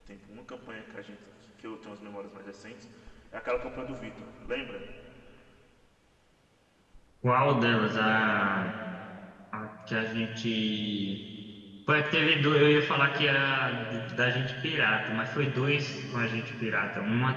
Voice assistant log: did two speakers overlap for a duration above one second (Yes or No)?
No